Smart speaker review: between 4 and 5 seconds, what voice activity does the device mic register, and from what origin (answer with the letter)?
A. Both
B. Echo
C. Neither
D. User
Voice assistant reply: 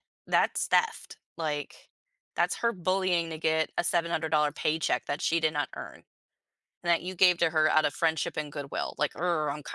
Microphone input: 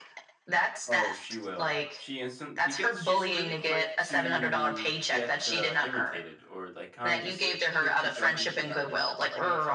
A